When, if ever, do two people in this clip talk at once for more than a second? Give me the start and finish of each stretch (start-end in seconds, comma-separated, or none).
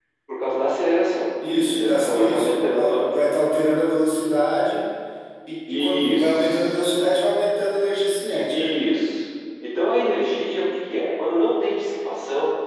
1.7-3.1, 5.7-7.1